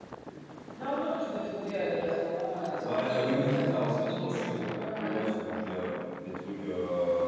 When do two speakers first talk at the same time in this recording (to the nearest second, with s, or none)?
3 s